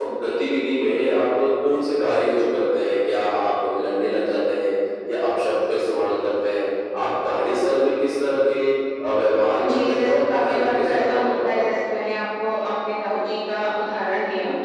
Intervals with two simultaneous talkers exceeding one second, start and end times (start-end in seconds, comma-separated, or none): 9.6-11.9